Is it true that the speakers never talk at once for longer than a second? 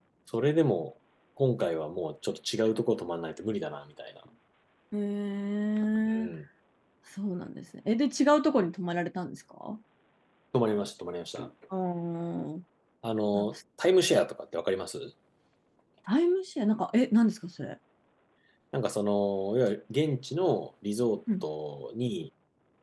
Yes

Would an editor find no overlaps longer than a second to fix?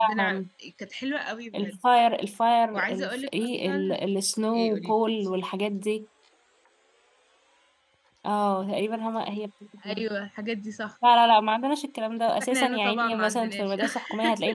No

